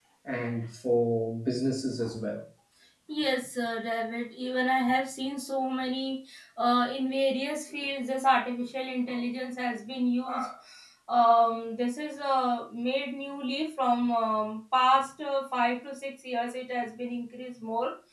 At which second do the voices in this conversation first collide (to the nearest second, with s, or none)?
none